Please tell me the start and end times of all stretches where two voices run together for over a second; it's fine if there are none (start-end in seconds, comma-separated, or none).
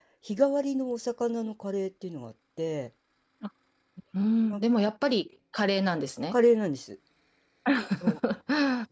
none